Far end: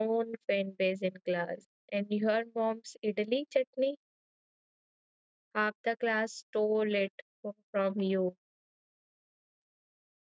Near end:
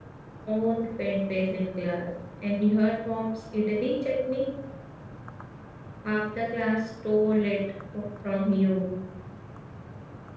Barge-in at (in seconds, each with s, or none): none